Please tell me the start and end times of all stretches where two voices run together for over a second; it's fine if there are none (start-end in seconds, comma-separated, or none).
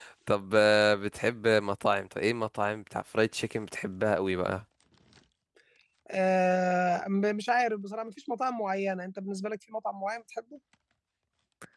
none